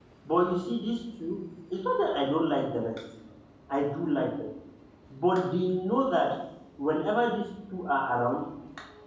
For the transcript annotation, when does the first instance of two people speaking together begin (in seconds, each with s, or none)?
none